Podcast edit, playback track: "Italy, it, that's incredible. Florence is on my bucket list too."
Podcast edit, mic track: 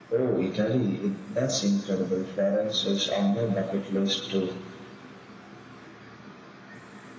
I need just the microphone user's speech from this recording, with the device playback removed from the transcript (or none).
none